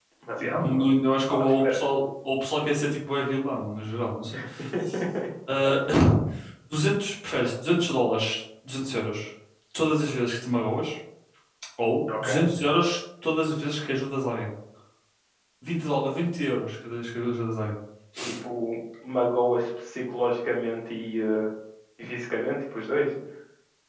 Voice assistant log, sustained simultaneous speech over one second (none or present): present